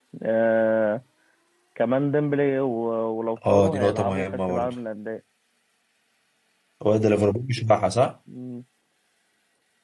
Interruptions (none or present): present